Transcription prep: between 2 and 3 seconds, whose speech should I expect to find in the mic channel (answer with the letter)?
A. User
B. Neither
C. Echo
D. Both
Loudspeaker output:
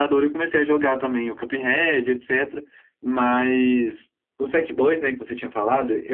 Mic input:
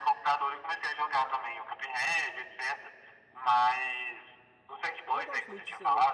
C